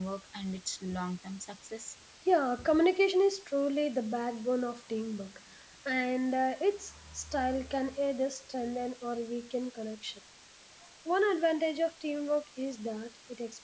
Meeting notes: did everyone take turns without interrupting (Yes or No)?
Yes